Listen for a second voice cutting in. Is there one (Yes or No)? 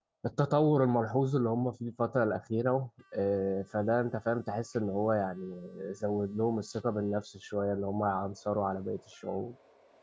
No